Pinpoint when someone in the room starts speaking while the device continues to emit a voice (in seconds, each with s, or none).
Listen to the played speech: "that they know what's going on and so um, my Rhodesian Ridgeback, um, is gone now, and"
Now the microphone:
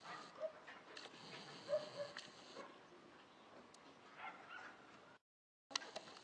none